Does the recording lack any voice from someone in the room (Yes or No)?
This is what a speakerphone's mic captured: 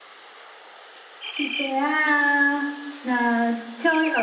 Yes